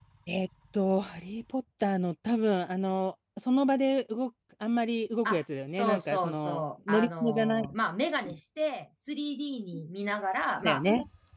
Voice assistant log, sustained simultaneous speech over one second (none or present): present